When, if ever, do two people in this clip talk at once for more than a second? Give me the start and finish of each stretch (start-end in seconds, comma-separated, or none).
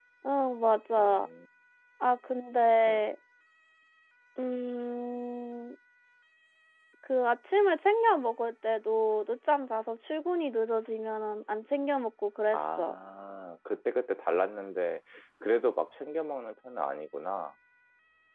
none